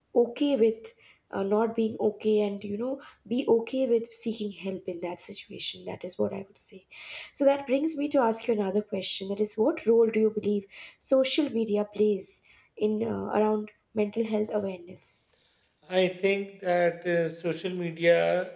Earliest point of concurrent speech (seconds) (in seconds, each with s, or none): none